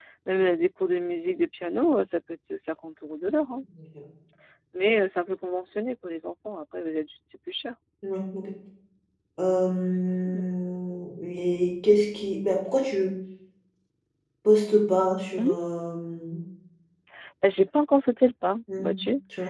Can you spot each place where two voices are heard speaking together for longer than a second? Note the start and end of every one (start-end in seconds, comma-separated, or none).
none